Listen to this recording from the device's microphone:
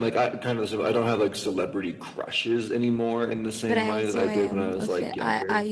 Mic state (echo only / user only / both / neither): both